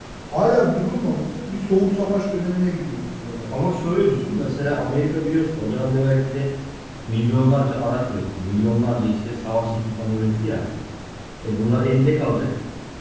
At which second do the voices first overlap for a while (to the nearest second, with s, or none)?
none